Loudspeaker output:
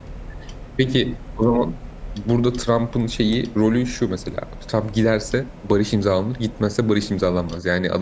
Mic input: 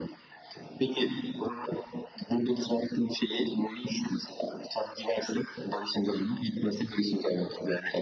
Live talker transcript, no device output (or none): none